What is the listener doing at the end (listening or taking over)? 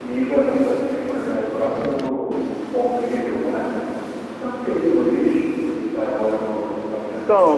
taking over